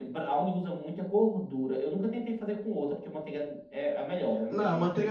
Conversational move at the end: taking over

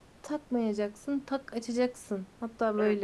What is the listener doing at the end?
taking over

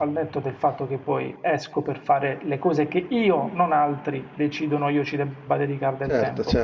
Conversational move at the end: taking over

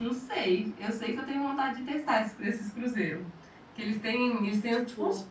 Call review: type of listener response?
listening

